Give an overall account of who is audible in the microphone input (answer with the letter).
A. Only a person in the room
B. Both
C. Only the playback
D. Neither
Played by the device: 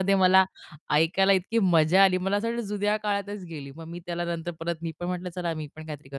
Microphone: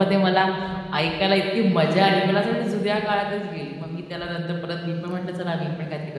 C